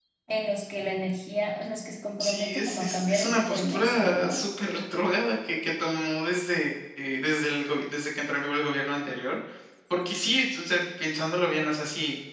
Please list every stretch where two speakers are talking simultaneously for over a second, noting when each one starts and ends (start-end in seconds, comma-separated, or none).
2.2-4.4